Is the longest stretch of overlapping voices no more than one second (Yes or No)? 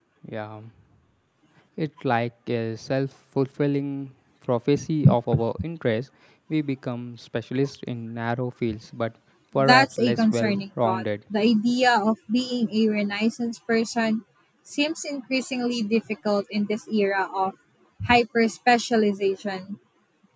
No